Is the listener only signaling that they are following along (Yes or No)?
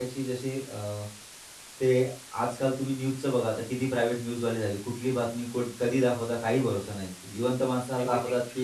Yes